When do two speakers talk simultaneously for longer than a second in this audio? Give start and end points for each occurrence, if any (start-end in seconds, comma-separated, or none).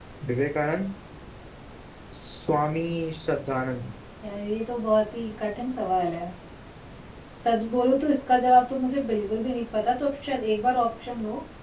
none